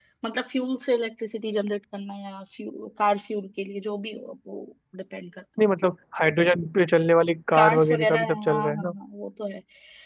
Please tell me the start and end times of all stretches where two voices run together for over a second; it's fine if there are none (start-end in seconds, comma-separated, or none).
7.5-8.9